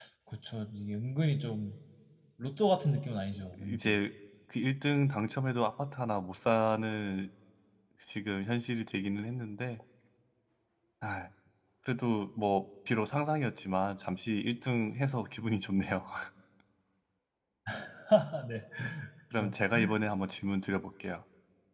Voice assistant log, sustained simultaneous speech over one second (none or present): none